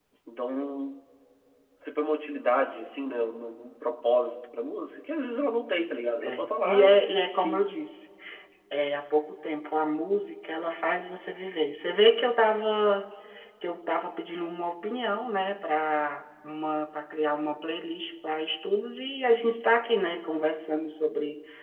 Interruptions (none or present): present